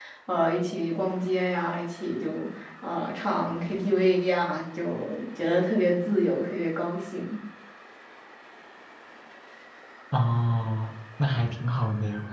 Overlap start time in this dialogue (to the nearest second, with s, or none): none